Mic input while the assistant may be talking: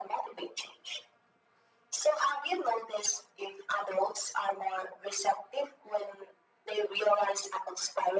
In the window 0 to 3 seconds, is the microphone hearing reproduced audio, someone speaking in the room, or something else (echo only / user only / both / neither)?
echo only